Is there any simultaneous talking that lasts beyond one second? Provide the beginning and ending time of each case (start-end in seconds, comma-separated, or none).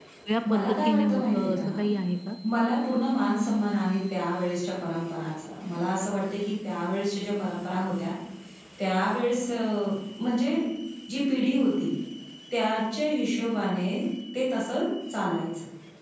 0.5-1.8